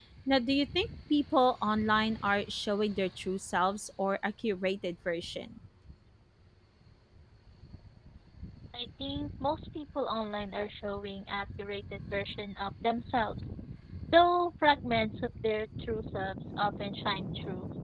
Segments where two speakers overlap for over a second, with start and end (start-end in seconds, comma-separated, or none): none